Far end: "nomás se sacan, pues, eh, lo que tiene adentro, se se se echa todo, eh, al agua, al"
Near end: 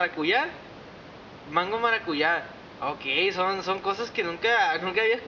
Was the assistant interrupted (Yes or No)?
Yes